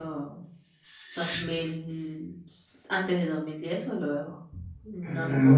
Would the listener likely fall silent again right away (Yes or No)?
No